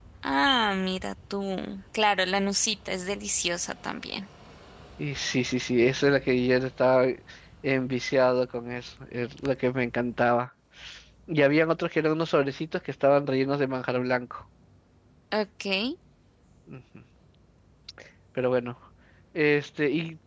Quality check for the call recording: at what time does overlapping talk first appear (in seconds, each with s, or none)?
none